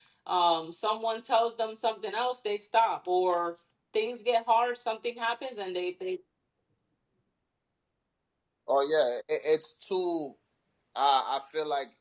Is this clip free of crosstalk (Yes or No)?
Yes